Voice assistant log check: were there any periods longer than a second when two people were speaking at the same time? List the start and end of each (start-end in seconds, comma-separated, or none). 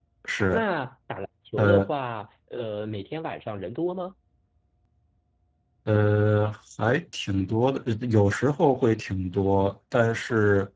none